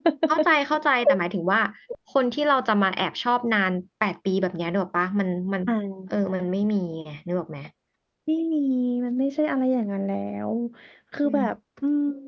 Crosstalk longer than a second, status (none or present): none